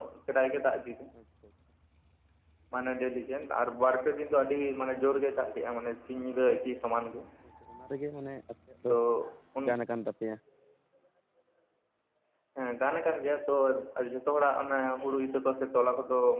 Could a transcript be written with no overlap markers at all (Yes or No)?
Yes